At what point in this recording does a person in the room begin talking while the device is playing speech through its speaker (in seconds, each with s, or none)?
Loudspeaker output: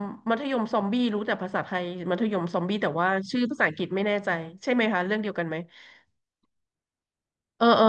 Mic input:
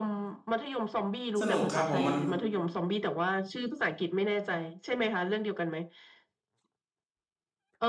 1.4 s